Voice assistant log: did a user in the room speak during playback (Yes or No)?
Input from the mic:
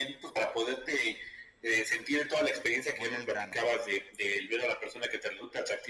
Yes